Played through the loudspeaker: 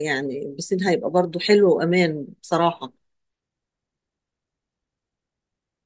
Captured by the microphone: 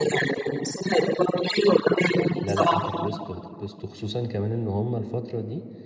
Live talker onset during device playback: 2.4 s

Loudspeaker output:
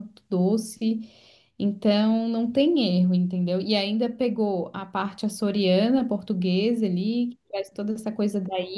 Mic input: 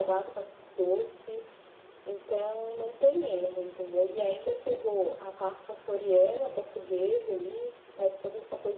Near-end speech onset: none

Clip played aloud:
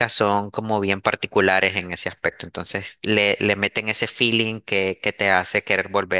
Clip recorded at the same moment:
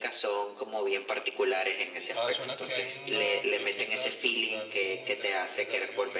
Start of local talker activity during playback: 2.1 s

